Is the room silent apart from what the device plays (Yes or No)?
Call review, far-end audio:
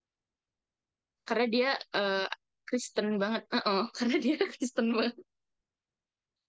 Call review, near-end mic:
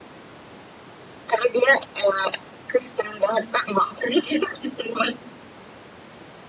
Yes